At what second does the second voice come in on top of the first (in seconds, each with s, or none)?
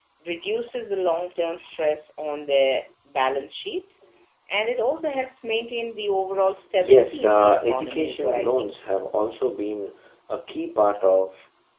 6.8 s